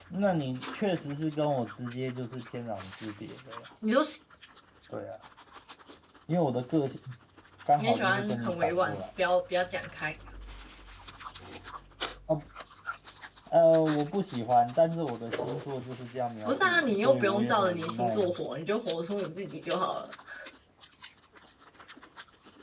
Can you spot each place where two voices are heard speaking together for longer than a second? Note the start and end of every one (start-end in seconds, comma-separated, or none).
7.8-9.0, 16.4-18.3